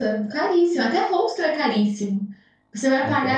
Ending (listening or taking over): listening